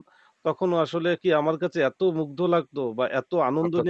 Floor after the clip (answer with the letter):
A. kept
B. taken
A